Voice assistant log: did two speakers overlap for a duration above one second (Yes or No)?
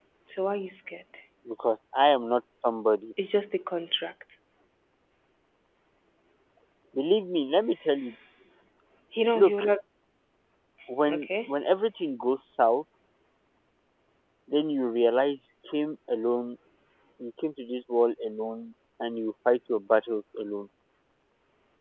No